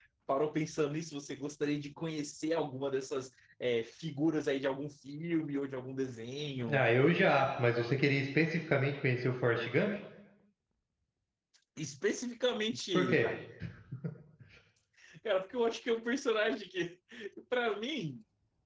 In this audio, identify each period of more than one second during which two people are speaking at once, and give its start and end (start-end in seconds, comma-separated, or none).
none